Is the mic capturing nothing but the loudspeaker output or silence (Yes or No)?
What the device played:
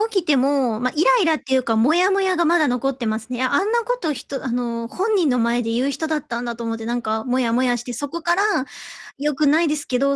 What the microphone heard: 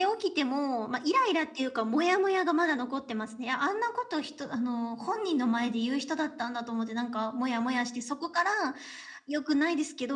Yes